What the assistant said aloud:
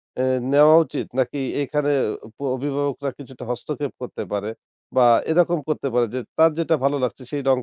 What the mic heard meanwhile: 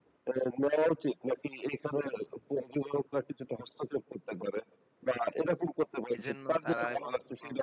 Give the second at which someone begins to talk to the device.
6 s

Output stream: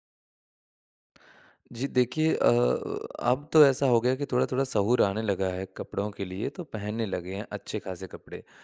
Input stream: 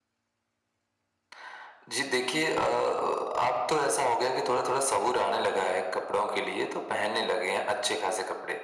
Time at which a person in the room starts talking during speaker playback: none

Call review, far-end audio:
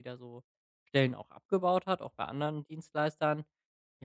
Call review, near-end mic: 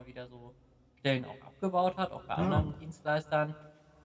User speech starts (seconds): 2 s

